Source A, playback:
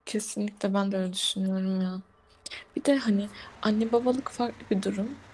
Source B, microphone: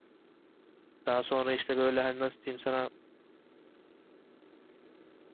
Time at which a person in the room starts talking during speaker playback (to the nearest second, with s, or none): 1 s